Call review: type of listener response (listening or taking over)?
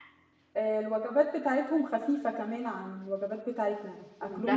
taking over